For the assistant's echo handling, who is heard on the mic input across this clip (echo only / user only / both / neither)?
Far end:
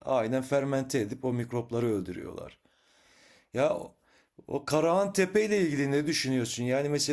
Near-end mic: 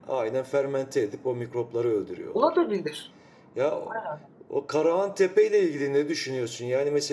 both